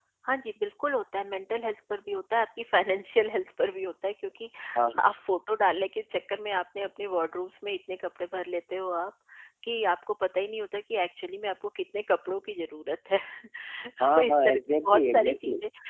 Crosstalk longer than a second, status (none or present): present